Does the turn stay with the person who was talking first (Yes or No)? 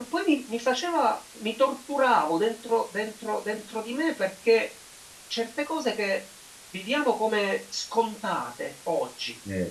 Yes